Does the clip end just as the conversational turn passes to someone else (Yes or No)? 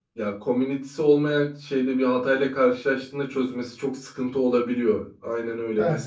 No